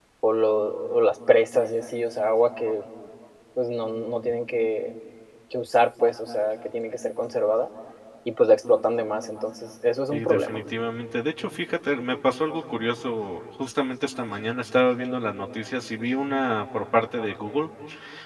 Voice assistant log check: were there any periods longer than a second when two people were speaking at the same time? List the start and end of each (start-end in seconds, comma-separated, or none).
none